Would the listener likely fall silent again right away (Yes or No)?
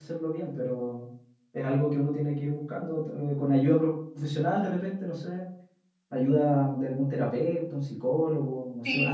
No